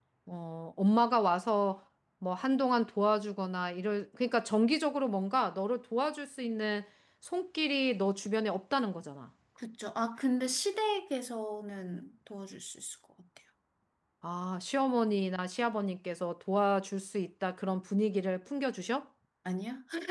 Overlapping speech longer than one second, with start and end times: none

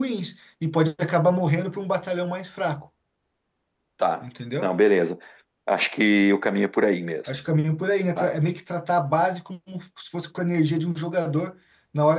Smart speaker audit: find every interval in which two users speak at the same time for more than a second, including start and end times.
none

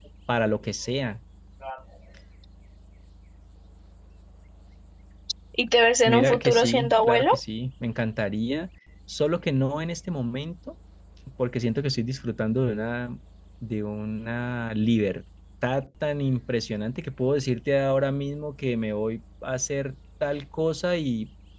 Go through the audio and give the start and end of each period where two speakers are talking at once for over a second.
6.0-7.4

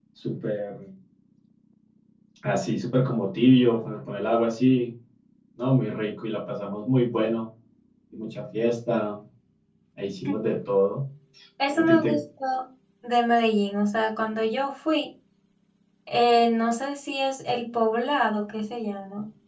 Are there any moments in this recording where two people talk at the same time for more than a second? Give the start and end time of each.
none

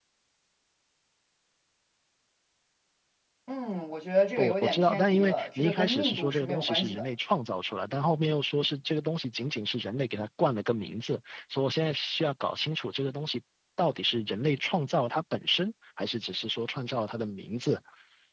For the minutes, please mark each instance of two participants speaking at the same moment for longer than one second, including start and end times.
4.4-7.0

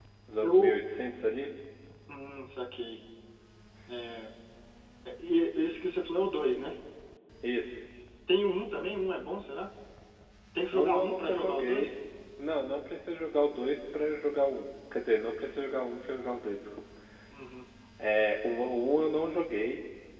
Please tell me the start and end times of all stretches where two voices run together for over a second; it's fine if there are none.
10.7-11.9

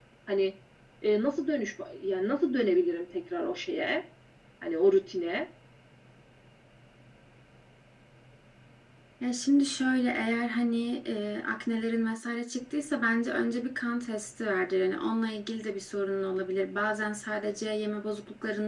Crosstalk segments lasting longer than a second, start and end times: none

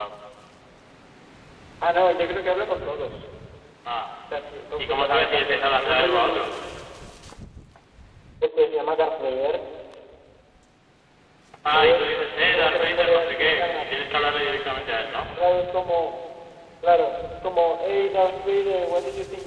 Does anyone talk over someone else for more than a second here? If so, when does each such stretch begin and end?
4.8-6.5, 11.7-13.8

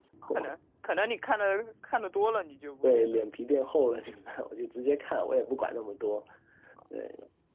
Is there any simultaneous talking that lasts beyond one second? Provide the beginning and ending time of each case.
none

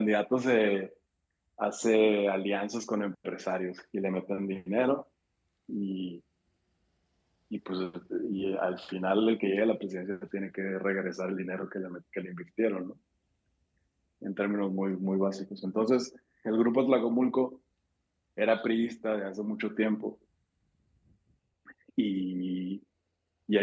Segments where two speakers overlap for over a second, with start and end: none

